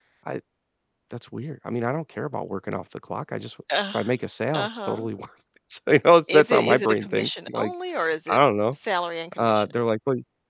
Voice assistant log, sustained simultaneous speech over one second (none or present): present